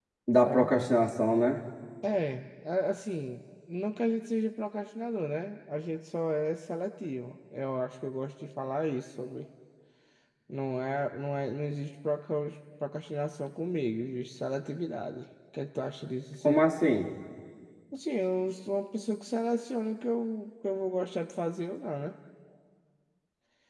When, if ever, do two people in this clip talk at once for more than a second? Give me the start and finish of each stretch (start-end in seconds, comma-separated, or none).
none